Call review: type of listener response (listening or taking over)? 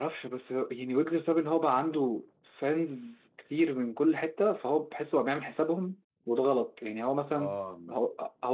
listening